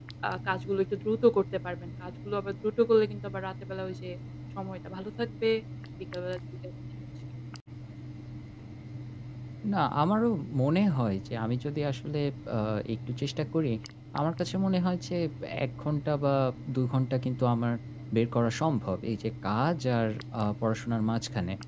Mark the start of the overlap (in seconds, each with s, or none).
none